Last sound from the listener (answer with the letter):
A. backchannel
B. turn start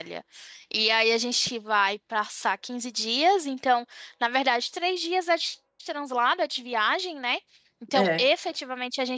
A